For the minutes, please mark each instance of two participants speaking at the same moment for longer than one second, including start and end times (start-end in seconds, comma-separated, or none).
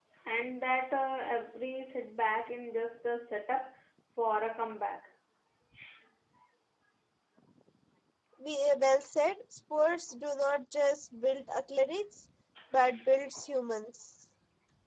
none